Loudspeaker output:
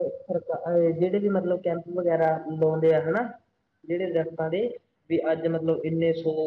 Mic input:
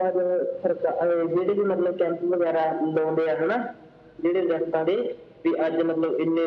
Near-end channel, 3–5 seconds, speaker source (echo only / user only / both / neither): echo only